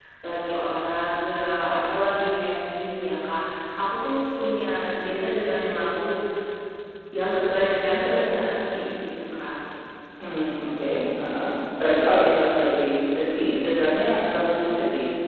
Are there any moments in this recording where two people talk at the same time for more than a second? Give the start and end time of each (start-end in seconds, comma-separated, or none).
none